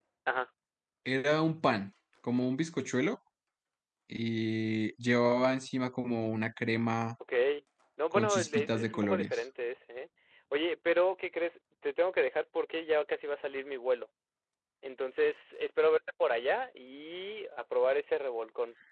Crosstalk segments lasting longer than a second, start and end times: 8.1-9.4

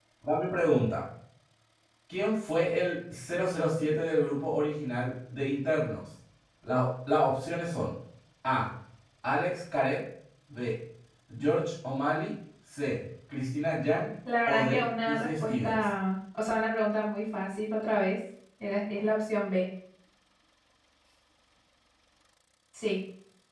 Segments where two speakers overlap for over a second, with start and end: 14.5-15.8

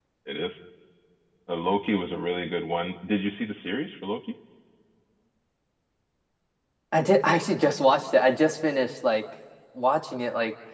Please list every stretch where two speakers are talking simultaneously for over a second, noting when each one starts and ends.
none

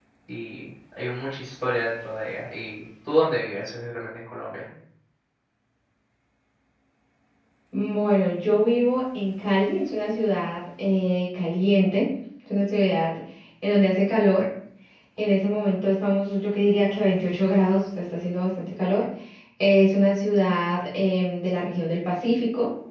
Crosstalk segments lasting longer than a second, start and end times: none

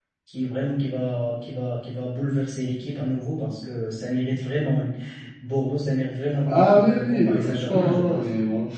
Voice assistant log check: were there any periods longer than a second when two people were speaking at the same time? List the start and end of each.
6.5-8.2

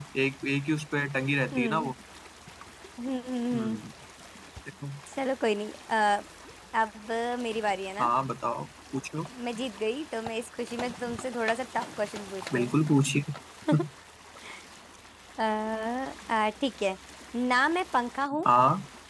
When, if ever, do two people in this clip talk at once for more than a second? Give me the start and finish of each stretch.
none

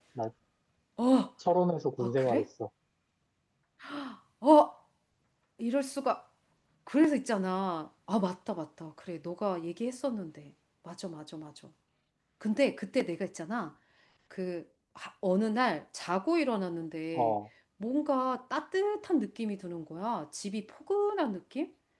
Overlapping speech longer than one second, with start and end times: none

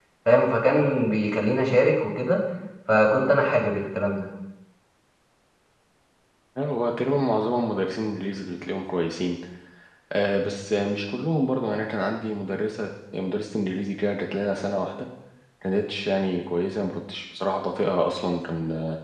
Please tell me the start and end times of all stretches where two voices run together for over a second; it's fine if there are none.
none

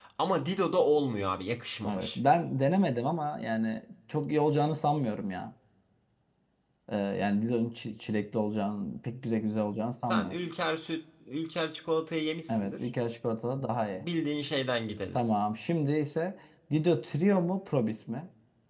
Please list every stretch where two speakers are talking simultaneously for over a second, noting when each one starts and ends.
none

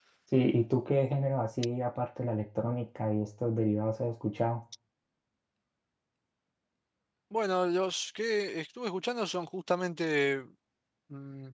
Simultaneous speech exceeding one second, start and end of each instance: none

